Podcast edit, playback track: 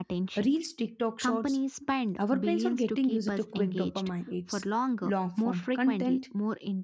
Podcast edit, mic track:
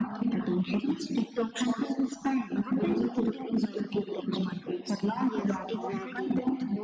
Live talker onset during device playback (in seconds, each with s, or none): 5.2 s